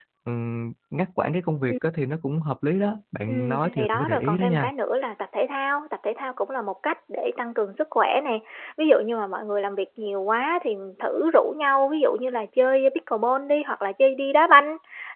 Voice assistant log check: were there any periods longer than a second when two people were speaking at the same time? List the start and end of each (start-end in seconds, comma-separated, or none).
3.3-4.7